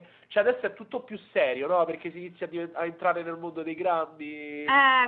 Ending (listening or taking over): taking over